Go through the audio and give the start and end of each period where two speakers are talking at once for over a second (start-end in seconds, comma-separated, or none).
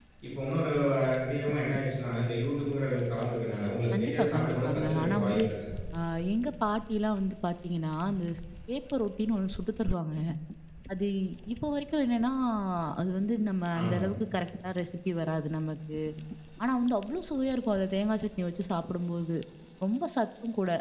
3.9-5.4